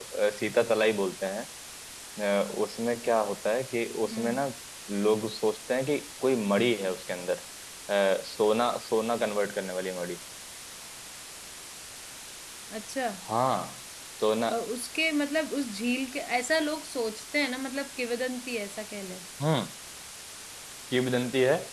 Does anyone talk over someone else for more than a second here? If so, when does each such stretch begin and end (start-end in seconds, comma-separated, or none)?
none